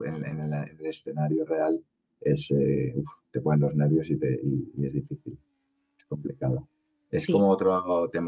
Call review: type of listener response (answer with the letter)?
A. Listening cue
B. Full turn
A